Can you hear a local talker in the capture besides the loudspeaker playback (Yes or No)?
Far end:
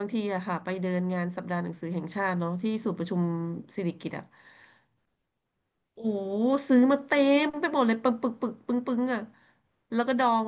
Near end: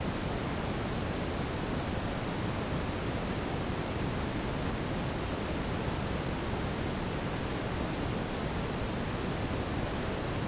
No